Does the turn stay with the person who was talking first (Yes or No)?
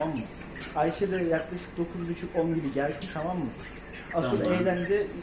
Yes